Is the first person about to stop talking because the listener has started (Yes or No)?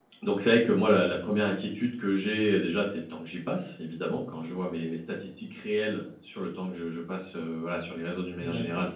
Yes